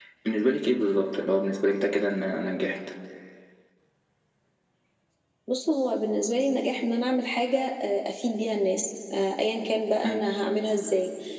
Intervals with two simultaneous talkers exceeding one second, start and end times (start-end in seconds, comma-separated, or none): none